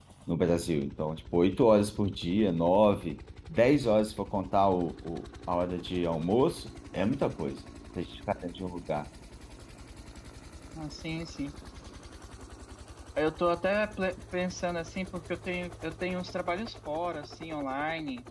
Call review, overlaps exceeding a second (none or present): none